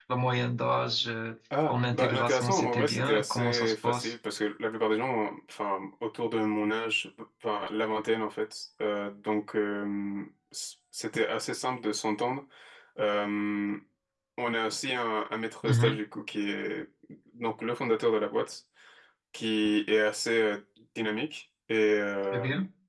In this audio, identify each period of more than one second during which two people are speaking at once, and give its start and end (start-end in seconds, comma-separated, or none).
1.7-4.1